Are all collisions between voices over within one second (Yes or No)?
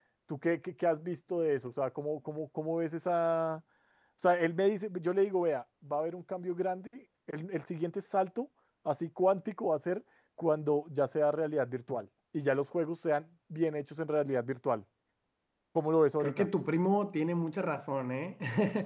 Yes